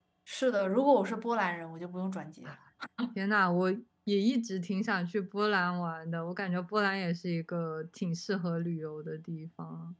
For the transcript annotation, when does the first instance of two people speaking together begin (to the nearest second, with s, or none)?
none